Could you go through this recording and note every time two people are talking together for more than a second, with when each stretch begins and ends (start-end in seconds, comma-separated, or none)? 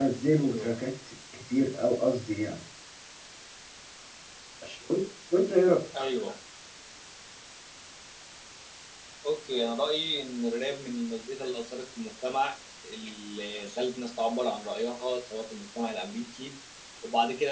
none